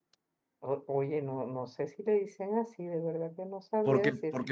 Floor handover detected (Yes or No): Yes